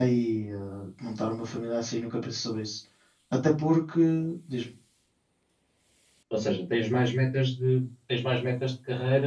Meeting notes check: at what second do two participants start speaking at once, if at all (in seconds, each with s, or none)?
none